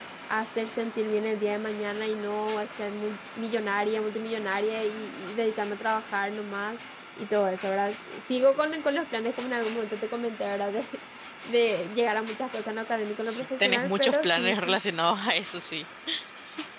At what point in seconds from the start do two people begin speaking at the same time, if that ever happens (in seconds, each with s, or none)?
13.2 s